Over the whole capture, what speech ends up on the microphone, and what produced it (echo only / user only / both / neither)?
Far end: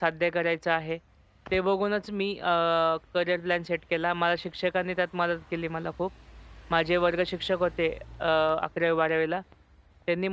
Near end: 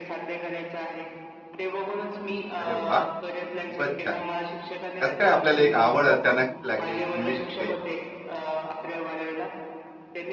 both